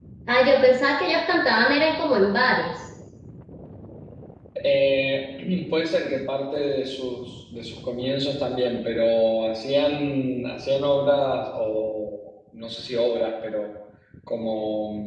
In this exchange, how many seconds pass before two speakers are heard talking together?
none

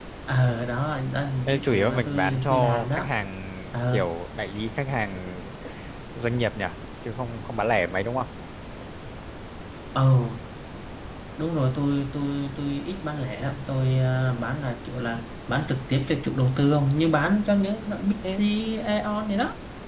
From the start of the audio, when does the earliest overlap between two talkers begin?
1 s

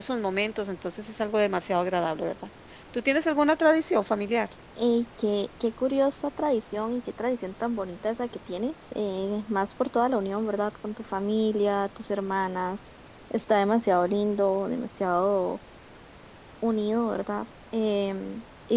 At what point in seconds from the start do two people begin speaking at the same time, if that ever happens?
none

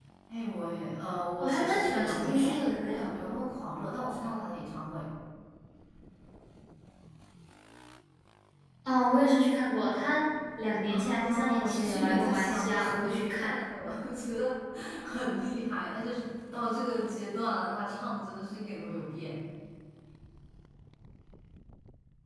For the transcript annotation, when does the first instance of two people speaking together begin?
1 s

